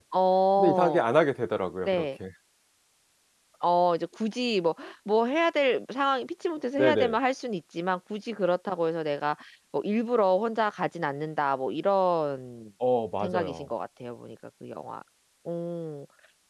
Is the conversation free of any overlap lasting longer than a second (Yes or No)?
Yes